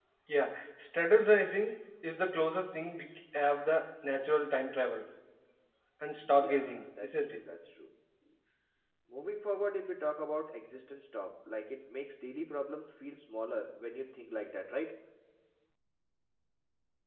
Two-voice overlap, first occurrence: 6.2 s

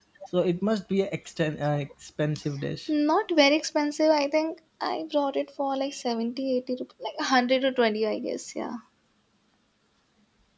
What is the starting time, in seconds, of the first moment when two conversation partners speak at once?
none

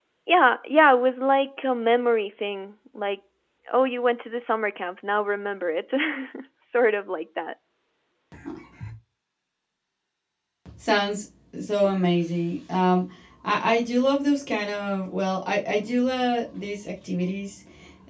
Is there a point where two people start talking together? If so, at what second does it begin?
none

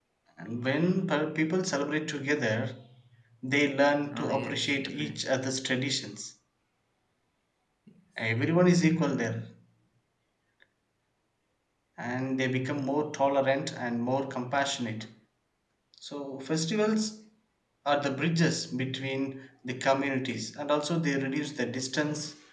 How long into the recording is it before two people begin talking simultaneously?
4.1 s

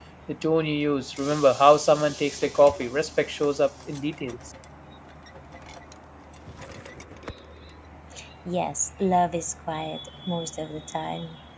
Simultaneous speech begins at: none

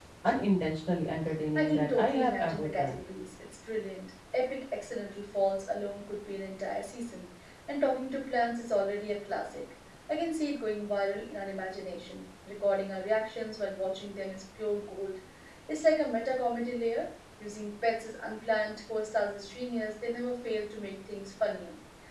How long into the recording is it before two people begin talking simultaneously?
1.6 s

